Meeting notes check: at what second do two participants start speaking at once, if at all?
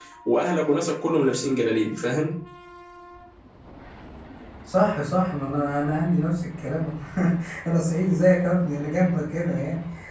none

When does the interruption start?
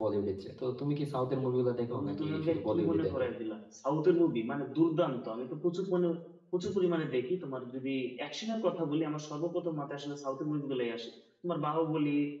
1.9 s

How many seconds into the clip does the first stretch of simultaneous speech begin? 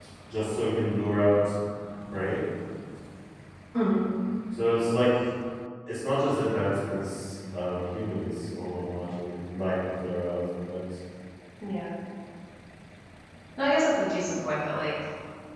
none

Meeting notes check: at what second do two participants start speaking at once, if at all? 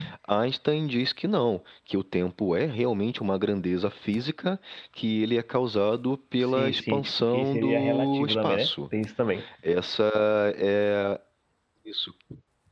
6.5 s

